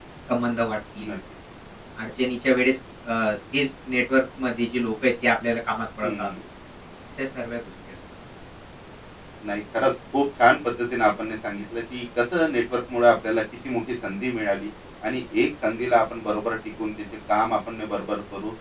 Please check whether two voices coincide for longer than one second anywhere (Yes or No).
No